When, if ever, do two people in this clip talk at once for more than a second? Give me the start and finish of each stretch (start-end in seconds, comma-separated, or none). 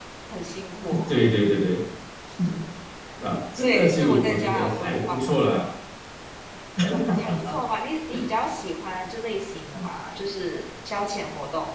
3.5-5.5